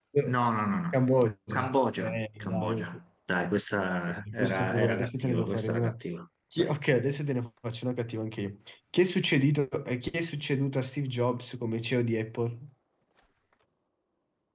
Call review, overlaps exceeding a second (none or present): present